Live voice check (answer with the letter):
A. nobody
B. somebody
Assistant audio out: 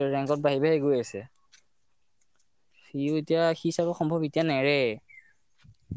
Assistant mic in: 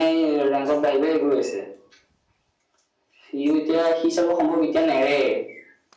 A